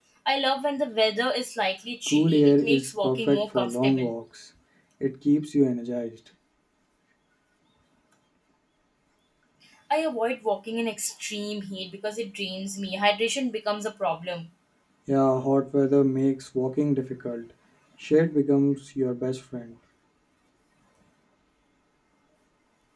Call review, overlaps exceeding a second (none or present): present